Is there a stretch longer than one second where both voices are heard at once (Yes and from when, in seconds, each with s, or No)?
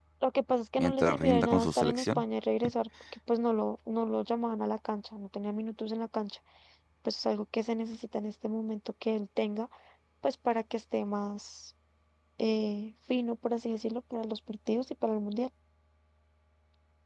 Yes, from 0.8 s